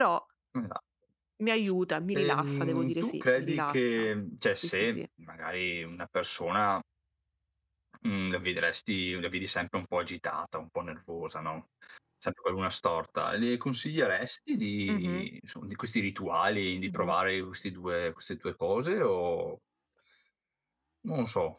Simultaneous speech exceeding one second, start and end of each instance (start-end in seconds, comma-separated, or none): 2.1-4.1